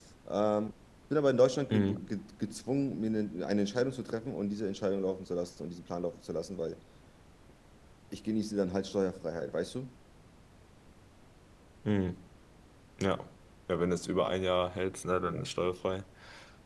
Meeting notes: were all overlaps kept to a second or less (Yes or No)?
Yes